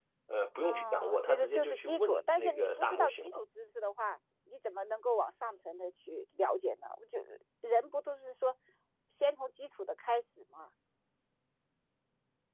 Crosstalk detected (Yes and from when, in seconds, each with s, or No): Yes, from 0.6 s